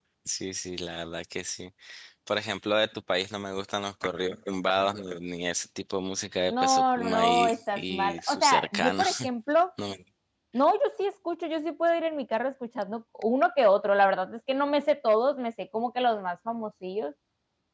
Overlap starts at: 6.5 s

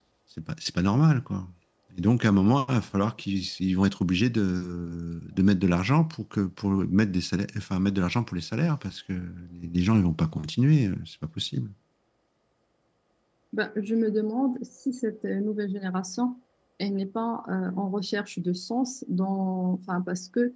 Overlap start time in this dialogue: none

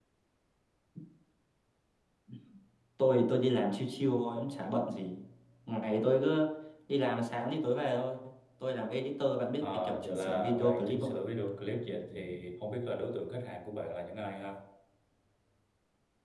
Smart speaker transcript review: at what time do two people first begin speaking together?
9.6 s

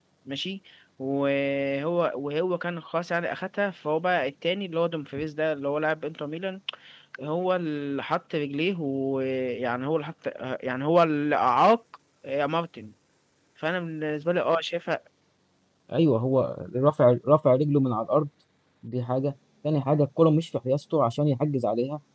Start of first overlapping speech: none

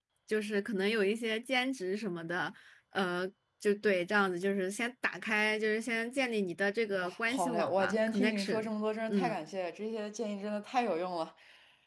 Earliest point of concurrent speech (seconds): 6.9 s

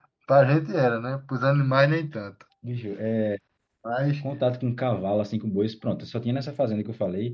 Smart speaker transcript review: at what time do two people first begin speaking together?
none

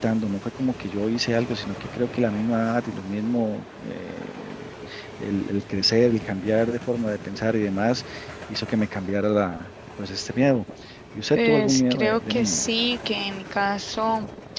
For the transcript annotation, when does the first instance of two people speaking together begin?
11.3 s

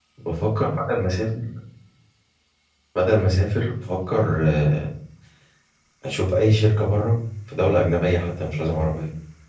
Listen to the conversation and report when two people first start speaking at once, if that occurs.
none

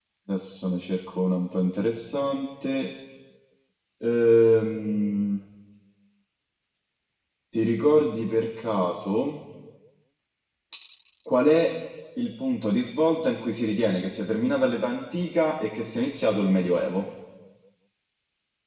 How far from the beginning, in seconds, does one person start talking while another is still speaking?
none

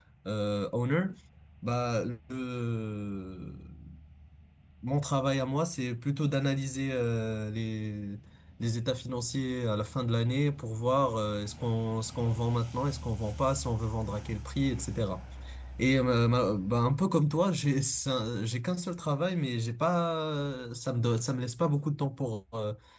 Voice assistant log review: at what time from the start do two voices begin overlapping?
none

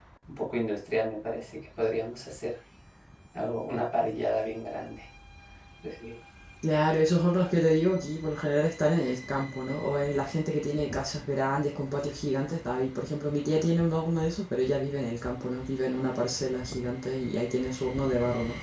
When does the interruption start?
none

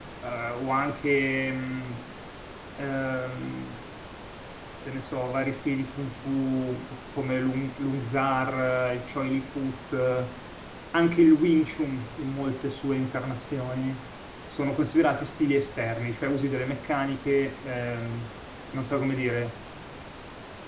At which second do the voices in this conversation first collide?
none

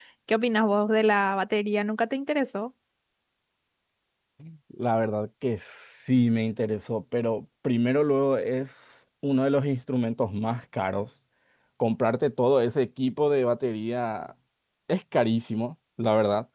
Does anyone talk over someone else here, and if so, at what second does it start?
none

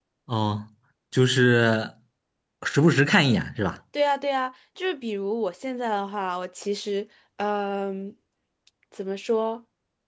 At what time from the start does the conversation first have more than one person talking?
none

